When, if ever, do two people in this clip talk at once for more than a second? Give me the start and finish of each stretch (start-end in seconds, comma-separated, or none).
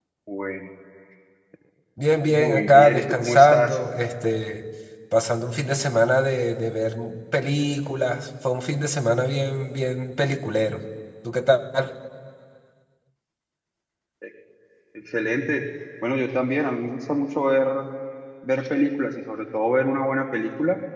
2.3-3.8